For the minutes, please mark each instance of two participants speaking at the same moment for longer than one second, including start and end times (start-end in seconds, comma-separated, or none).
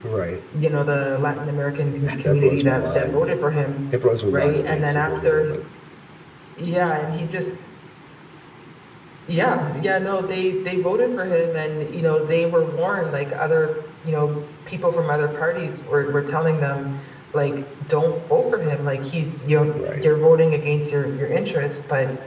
2.0-3.2, 4.3-5.5